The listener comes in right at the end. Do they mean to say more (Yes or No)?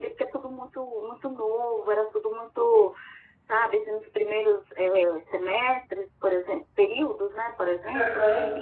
No